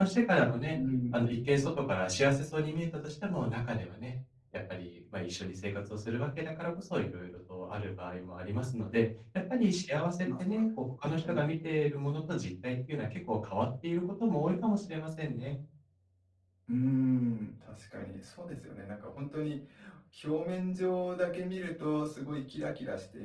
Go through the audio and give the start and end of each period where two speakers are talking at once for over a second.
none

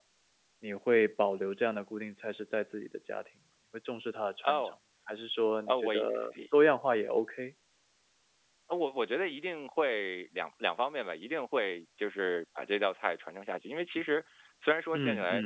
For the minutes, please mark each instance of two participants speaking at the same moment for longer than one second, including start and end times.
none

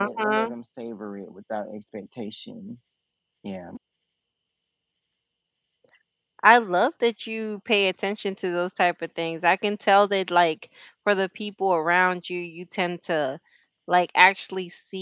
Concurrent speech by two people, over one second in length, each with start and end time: none

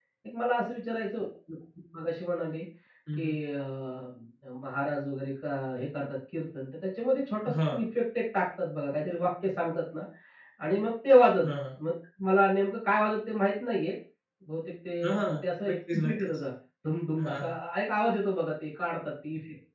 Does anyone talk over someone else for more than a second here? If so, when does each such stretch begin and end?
15.1-16.4

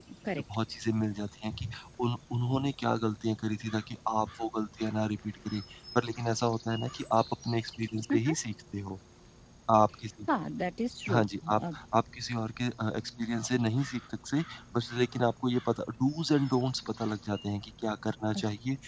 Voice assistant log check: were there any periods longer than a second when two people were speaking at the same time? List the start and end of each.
none

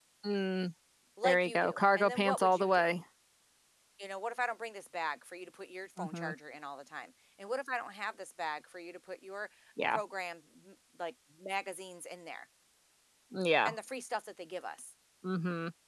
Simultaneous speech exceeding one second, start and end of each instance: 1.2-2.9

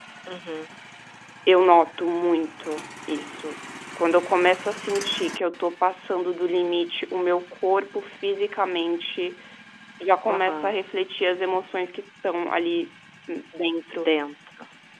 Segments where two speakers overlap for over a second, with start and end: none

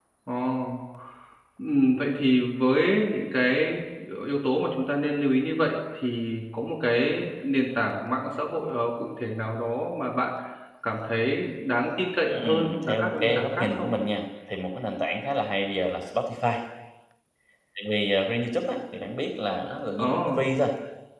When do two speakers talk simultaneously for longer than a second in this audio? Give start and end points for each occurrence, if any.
12.3-13.9

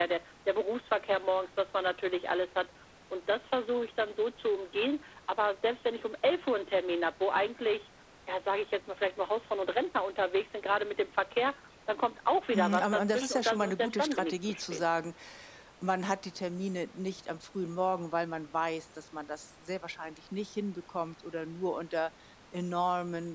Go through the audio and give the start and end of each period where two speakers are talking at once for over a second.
12.5-14.8

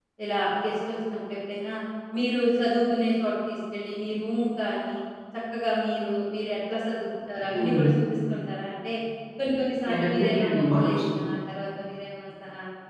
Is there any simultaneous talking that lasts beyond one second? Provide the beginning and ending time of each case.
9.9-11.2

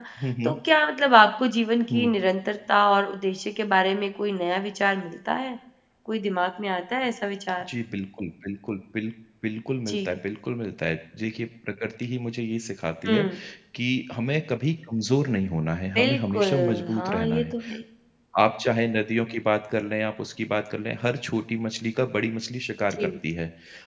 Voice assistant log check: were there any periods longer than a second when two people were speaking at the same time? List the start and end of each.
15.9-17.5

